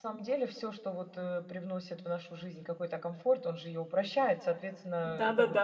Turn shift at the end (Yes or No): Yes